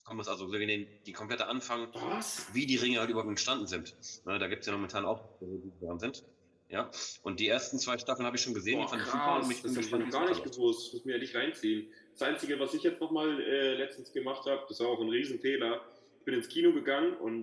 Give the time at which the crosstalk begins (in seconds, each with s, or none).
8.7 s